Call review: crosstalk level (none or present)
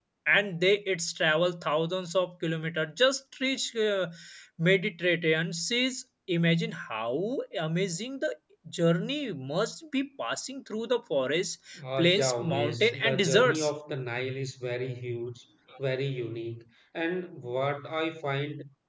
present